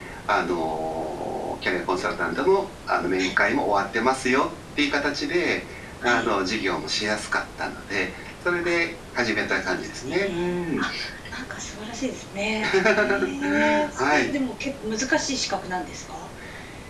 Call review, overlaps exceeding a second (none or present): present